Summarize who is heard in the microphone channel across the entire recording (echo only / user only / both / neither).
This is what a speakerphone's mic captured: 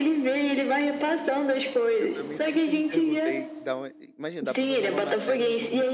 both